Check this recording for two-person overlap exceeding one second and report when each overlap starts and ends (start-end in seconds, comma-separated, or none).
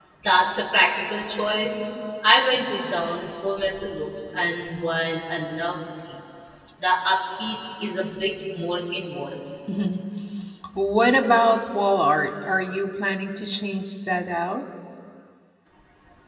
none